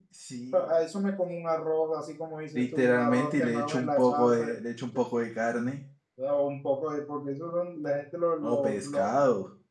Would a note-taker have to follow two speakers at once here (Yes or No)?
Yes